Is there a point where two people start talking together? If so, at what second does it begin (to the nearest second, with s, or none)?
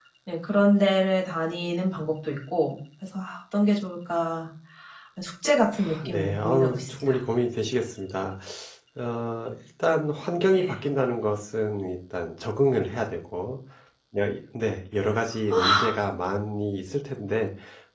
6 s